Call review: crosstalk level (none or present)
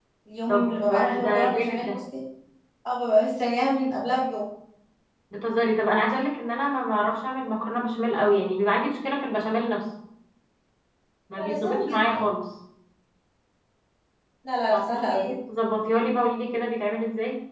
present